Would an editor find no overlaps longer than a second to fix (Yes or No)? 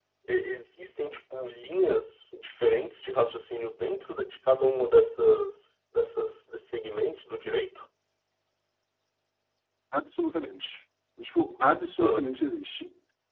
Yes